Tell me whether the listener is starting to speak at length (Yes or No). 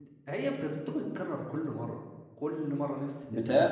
Yes